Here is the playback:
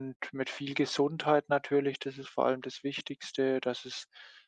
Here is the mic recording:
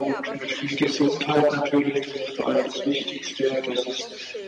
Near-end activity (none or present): present